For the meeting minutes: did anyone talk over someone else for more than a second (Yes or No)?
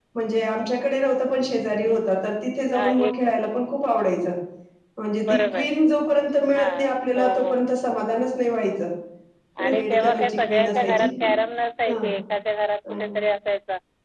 Yes